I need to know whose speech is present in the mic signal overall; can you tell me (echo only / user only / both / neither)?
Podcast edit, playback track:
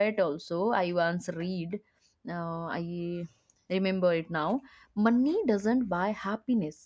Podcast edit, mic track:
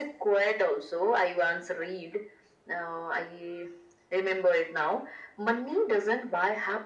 echo only